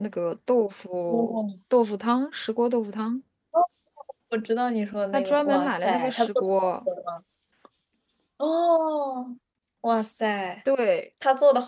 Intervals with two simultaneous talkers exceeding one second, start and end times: 5.1-6.9

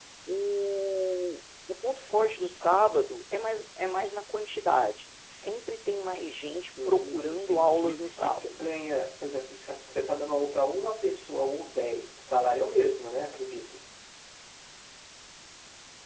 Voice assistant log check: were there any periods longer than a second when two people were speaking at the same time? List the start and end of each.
6.9-8.5

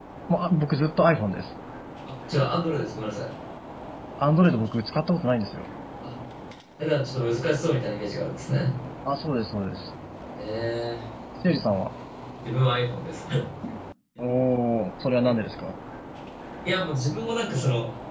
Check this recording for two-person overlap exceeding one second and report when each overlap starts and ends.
none

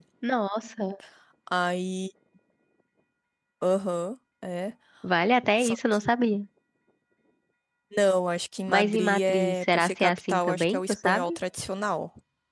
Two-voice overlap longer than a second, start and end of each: 8.7-11.4

